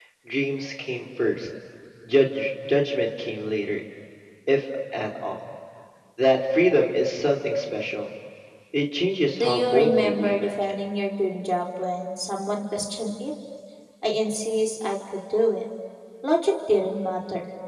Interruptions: present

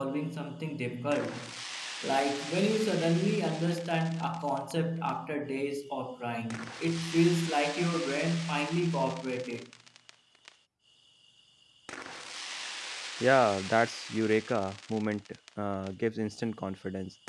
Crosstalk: none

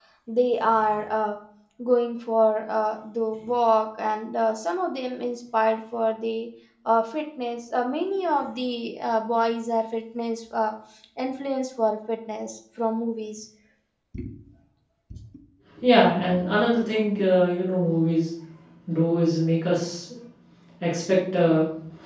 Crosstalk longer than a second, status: none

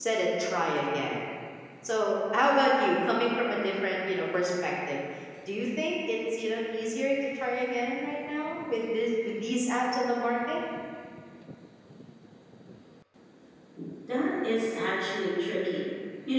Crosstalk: none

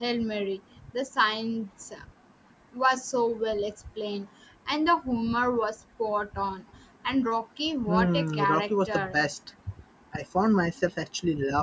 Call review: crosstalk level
present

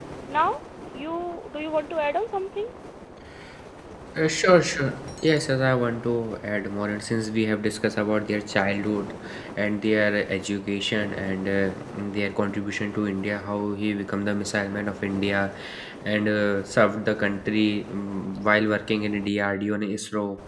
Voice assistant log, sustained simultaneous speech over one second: none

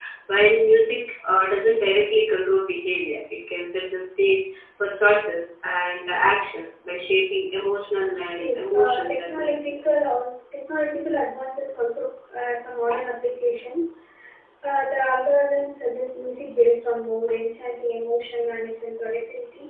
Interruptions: present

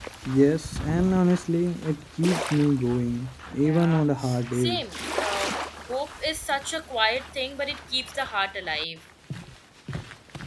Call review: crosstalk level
present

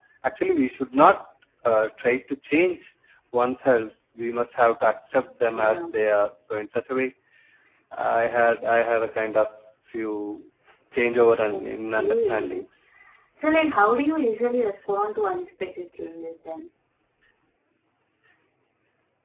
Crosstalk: present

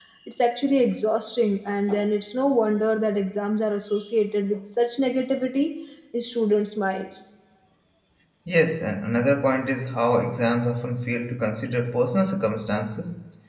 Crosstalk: none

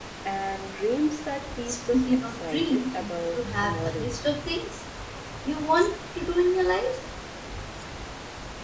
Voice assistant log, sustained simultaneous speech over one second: present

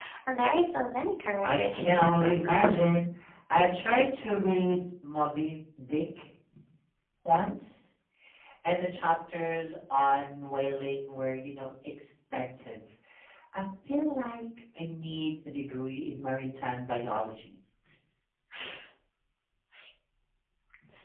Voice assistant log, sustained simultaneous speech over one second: present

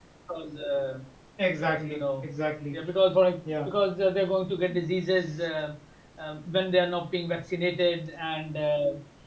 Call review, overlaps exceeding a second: none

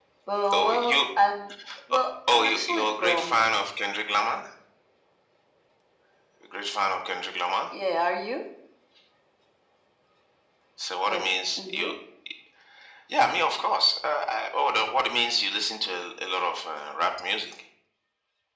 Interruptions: present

